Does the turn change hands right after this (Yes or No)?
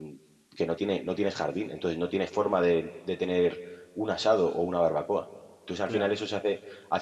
No